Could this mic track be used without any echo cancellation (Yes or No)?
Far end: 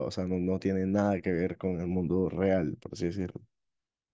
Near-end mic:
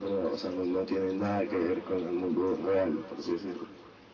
No